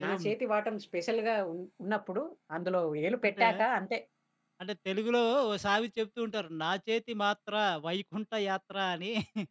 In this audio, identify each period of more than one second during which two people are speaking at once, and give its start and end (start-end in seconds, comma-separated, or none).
none